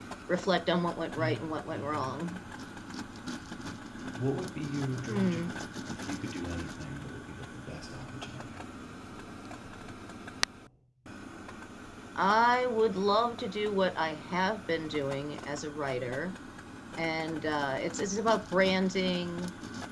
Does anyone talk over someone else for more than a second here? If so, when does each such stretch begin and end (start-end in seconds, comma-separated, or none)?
1.2-2.4